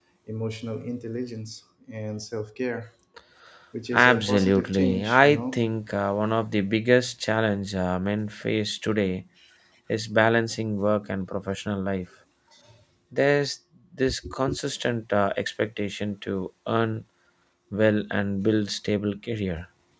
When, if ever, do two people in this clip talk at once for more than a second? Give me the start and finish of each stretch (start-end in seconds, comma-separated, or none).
3.9-5.6